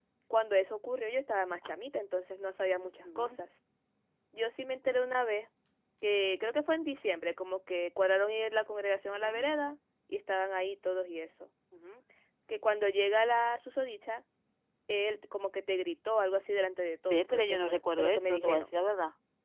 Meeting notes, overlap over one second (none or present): present